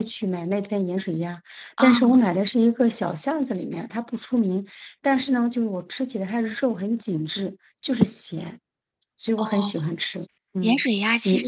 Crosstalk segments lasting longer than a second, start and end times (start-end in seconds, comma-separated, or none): none